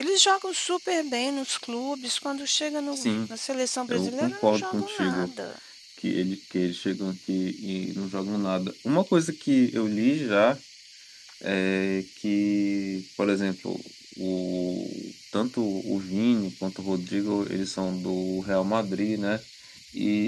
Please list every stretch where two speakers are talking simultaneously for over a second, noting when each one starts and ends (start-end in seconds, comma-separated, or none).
3.9-5.3